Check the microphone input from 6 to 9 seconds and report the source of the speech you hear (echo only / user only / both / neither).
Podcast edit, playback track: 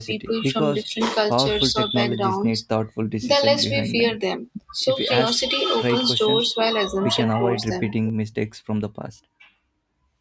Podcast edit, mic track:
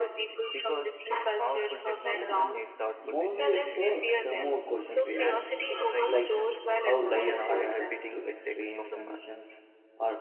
both